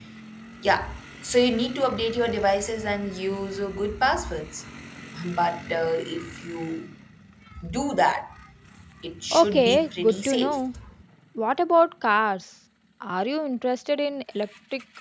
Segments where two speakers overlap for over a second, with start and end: 9.3-10.6

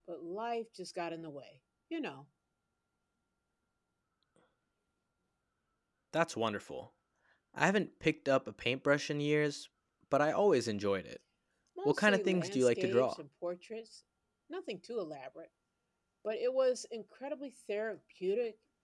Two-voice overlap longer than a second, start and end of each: 11.8-13.2

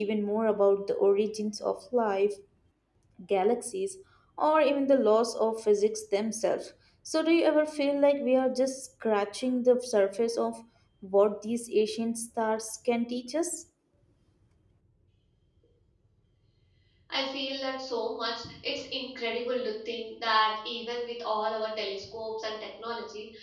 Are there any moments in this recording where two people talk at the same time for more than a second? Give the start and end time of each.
none

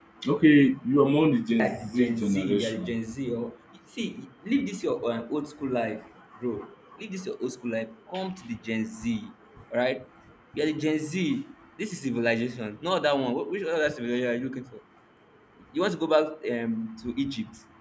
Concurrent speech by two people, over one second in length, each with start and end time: 1.6-2.9

